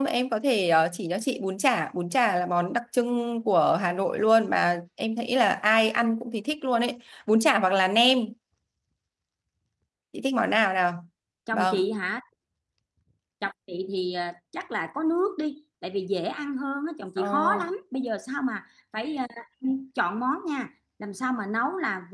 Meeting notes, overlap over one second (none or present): none